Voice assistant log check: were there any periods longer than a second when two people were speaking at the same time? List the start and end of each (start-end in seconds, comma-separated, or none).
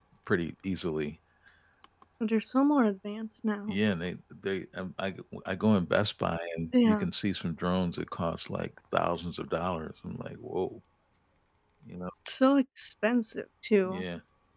none